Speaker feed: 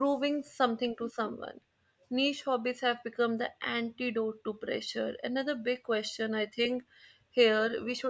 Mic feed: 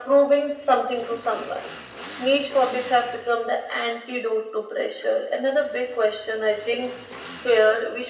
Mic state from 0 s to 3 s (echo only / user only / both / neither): echo only